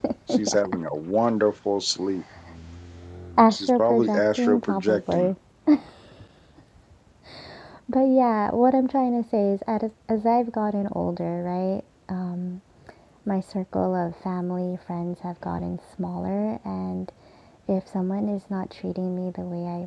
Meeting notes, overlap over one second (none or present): present